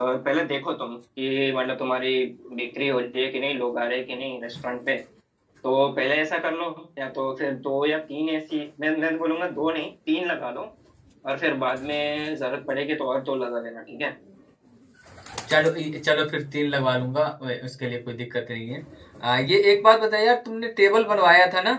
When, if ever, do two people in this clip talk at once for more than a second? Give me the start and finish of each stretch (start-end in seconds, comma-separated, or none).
none